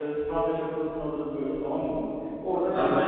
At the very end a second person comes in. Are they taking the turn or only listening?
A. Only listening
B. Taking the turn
B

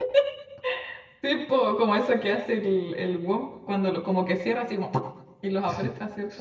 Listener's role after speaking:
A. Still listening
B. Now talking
B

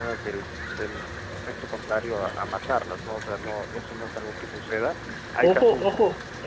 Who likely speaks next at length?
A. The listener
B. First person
A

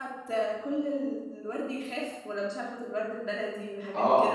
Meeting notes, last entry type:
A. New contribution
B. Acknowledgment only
A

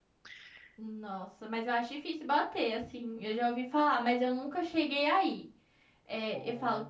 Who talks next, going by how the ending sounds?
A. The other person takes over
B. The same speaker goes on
B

